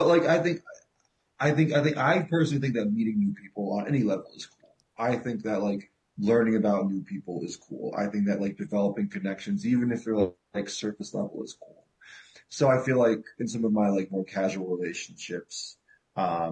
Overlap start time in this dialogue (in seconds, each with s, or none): none